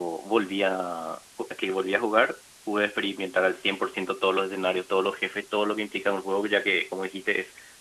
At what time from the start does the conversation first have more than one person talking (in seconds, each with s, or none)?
none